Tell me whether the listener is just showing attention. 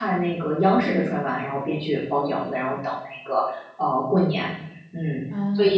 No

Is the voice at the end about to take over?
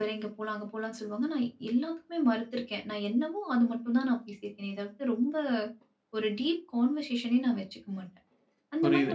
Yes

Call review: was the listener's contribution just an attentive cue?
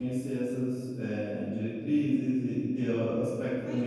No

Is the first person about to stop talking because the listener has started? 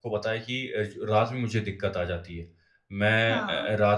No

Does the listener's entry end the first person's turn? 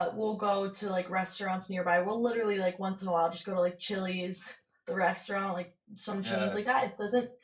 No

